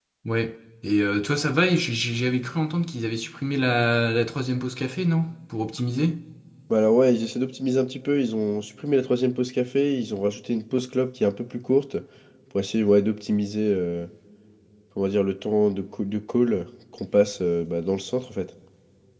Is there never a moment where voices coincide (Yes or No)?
Yes